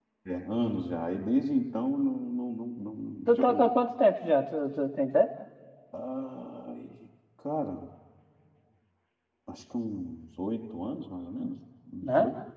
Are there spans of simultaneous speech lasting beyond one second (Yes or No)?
No